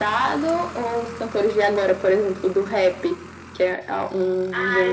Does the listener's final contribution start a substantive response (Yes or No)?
Yes